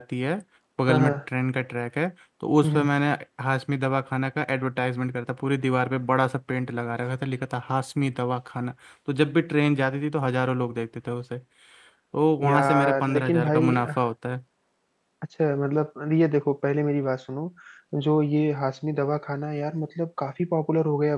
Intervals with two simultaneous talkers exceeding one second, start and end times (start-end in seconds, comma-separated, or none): 12.4-13.7